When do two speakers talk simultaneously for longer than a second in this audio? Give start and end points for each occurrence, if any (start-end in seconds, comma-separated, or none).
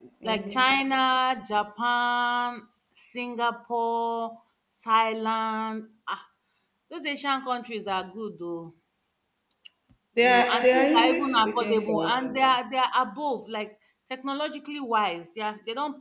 10.2-12.5